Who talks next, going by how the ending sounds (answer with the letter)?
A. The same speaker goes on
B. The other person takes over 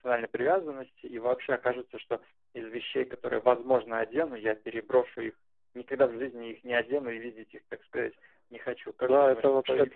B